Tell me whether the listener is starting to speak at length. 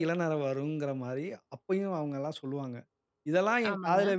No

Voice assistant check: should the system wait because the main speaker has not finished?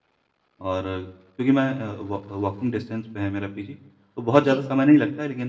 Yes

